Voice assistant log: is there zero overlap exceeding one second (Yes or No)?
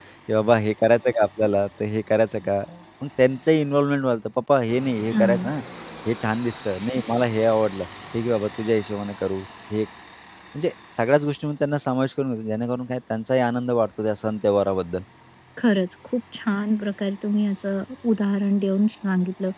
Yes